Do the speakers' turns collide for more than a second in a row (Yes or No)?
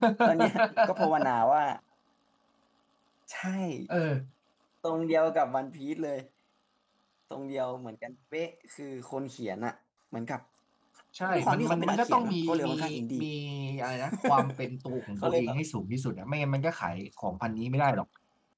Yes